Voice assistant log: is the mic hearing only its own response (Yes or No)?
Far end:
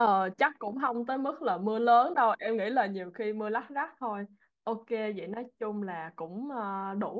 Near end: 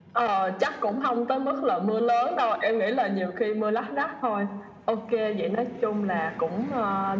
Yes